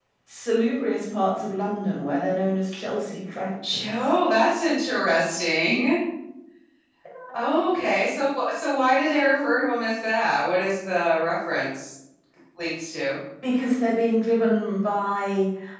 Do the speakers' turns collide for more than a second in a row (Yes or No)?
No